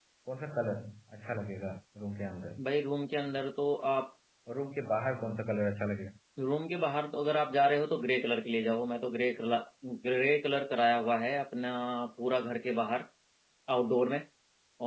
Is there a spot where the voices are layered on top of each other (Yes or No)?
No